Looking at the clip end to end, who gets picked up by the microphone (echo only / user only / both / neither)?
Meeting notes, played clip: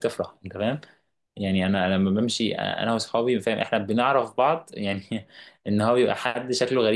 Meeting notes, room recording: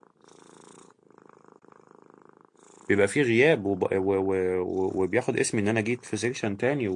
user only